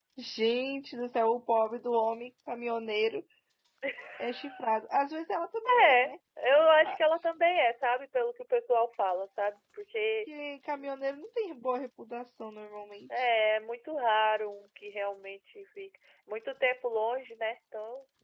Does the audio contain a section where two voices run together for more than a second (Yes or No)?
No